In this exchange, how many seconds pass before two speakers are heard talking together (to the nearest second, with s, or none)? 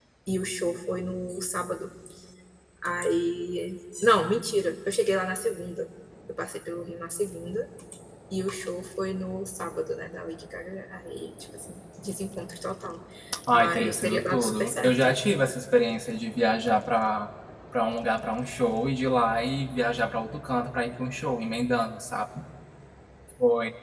14 s